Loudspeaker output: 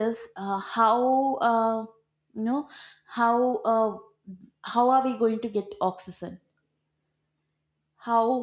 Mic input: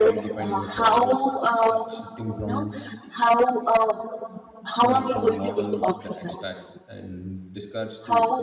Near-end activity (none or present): present